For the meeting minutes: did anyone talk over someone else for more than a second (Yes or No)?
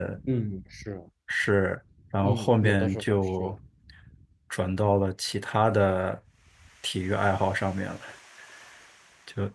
Yes